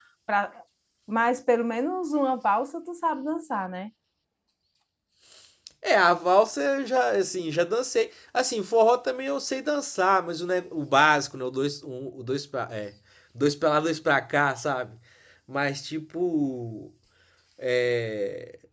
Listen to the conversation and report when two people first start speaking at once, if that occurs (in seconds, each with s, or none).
none